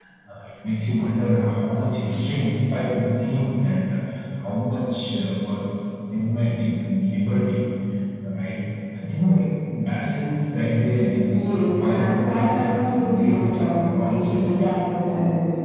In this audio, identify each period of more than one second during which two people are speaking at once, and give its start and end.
11.3-14.8

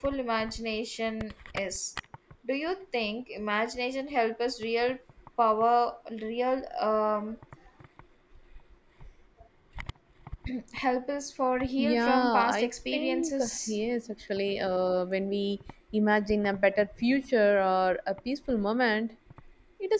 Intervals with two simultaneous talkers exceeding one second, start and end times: 11.8-13.8

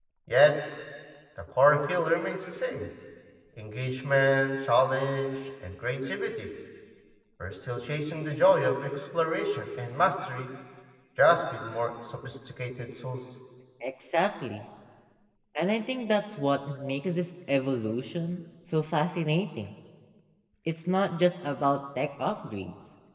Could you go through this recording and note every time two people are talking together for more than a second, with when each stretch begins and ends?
none

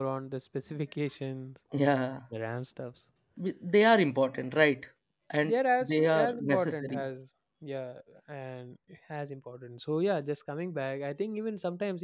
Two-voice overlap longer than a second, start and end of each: 5.4-7.0

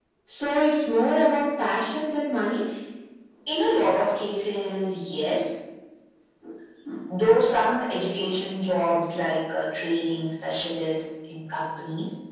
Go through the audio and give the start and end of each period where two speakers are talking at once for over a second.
none

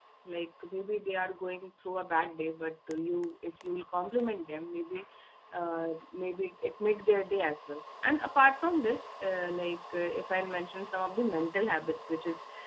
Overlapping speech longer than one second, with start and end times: none

